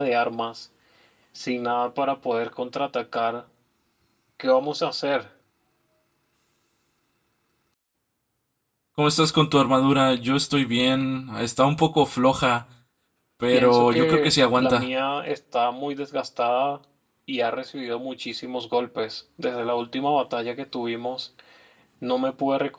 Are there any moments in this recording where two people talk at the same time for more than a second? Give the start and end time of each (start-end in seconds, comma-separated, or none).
13.5-14.9